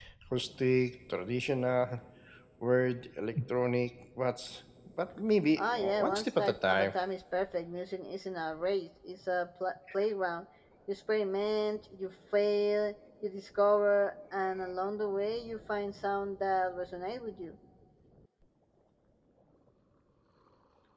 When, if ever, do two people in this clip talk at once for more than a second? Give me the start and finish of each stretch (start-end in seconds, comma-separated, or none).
5.6-6.9